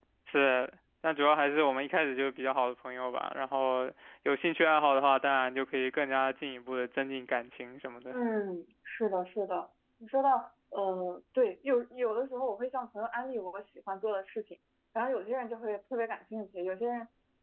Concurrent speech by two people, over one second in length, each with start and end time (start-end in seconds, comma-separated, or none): none